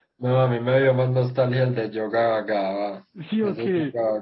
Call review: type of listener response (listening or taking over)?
listening